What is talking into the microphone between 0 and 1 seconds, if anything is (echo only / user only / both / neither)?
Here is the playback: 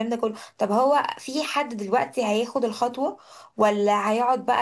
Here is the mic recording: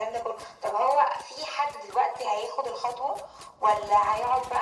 echo only